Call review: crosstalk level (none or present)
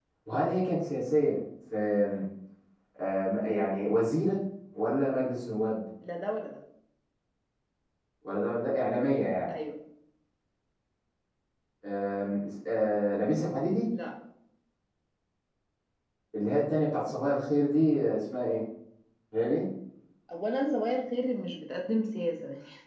none